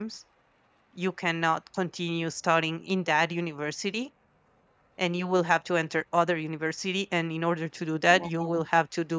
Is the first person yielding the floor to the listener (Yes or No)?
No